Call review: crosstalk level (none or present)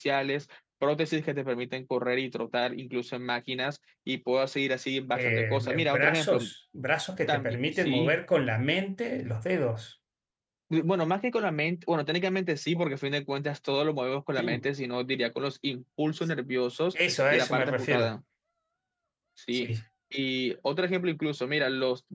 present